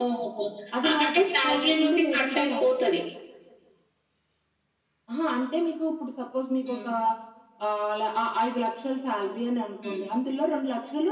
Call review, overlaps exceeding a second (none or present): present